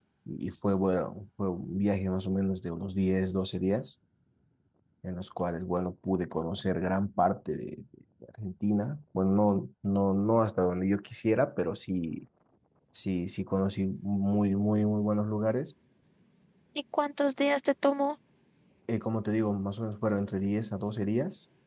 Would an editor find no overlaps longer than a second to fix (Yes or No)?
Yes